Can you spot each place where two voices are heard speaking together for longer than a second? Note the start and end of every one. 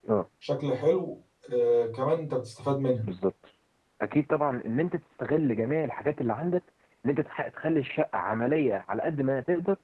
none

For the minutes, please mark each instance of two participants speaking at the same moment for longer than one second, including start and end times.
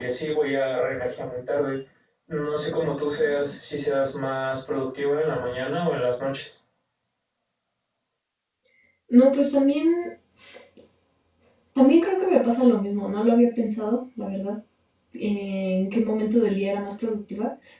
none

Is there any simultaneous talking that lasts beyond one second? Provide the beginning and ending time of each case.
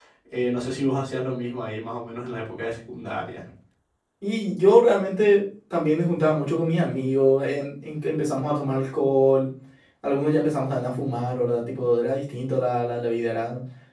none

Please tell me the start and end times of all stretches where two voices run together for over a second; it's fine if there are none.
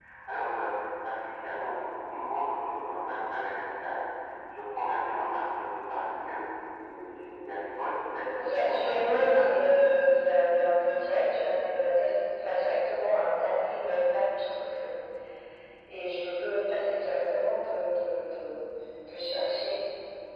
8.3-9.6

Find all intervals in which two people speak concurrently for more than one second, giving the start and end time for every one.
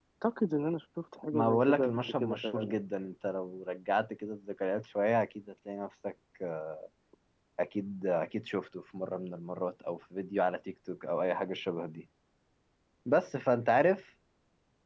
1.3-2.8

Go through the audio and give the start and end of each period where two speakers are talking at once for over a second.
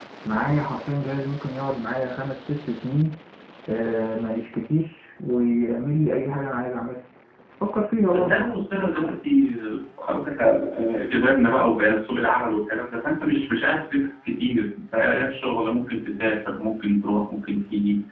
none

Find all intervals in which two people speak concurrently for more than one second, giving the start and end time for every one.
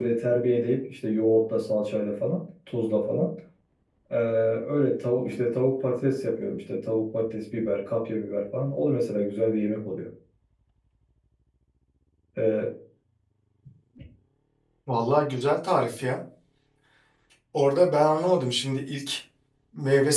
none

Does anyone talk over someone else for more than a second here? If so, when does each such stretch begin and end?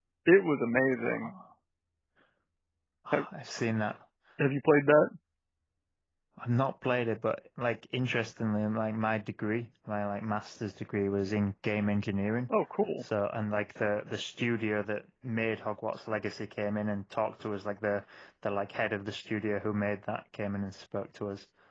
none

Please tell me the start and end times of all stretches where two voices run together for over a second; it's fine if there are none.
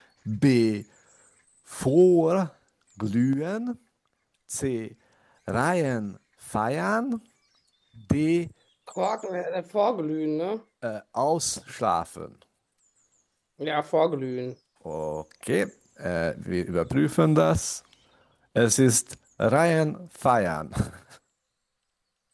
none

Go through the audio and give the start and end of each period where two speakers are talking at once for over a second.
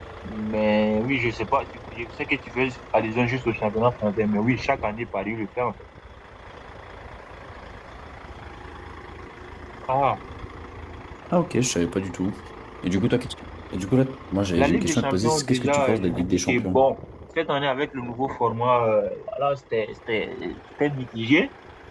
14.6-16.8

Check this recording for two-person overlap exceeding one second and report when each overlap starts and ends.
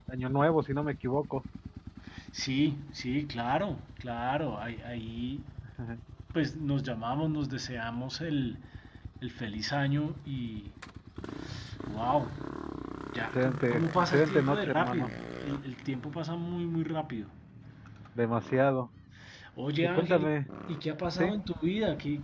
13.3-15.1

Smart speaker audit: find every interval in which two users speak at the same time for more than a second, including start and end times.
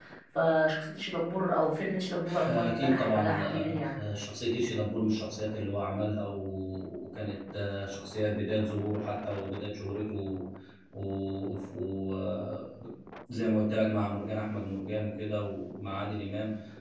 2.5-3.9

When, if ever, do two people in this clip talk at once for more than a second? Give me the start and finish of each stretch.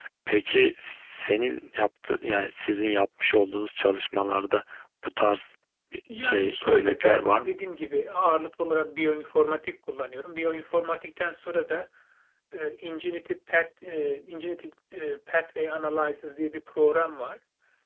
6.1-7.6

